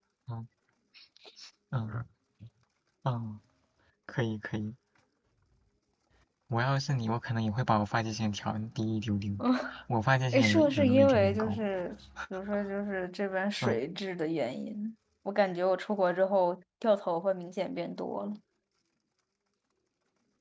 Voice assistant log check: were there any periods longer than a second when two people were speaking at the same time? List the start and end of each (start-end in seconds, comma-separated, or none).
10.3-11.6